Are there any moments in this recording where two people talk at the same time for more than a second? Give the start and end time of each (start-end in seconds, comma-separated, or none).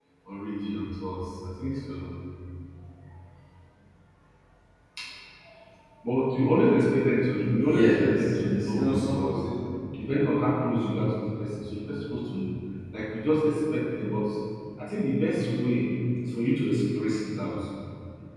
7.6-9.4